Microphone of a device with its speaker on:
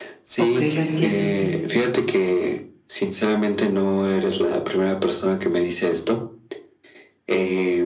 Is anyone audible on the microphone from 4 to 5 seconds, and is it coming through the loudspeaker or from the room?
echo only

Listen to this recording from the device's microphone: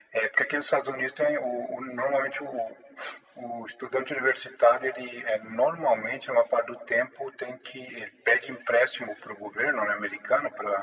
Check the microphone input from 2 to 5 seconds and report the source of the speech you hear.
echo only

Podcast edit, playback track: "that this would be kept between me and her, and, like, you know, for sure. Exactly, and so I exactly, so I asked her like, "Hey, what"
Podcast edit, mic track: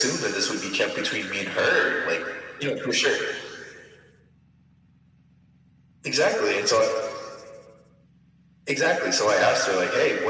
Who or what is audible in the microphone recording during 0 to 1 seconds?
echo only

